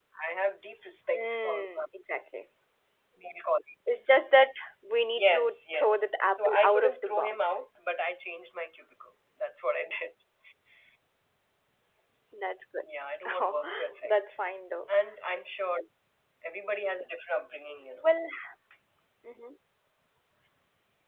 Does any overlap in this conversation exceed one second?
Yes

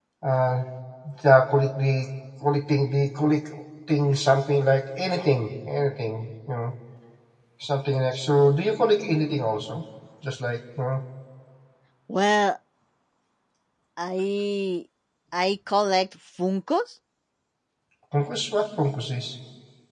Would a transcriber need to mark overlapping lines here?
No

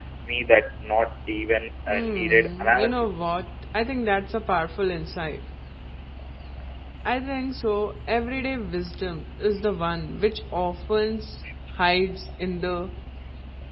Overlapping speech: Yes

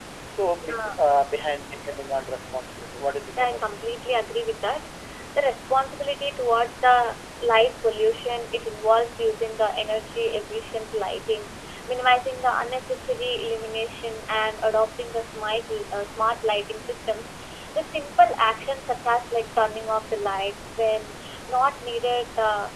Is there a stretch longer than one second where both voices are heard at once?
No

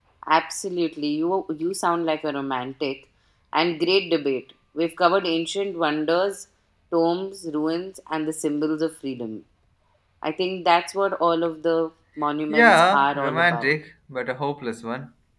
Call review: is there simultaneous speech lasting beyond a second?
Yes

